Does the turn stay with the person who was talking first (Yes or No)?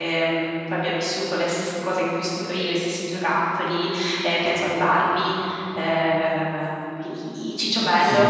No